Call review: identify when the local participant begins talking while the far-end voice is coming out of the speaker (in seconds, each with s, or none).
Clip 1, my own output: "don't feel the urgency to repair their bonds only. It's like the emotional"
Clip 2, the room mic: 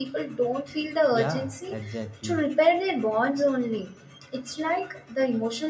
1.1 s